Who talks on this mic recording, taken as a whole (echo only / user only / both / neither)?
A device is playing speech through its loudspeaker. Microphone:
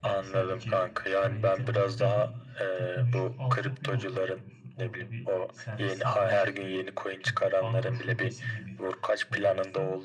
both